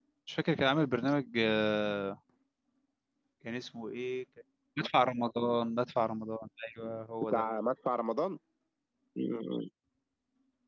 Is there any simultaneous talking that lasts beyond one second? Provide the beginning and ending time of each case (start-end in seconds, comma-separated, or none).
none